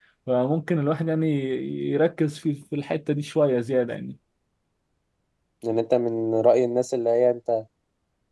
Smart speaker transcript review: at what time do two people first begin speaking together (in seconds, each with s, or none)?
none